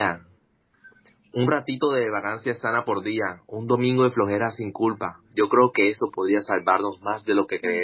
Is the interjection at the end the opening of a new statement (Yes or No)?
Yes